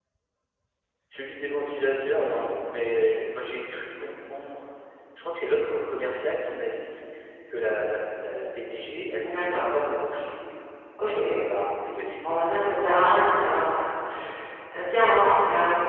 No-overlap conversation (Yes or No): No